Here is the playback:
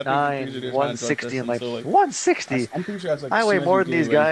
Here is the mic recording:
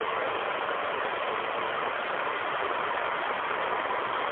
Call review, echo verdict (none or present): none